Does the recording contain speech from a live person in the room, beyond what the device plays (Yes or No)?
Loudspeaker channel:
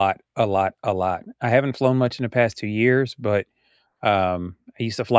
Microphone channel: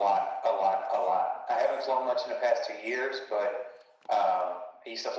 No